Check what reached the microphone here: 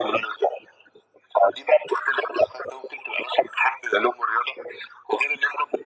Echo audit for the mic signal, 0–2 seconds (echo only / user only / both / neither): echo only